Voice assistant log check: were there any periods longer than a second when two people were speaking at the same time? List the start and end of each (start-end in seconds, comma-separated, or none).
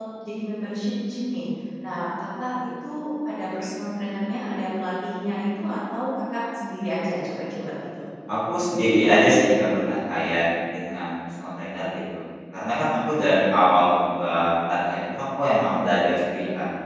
none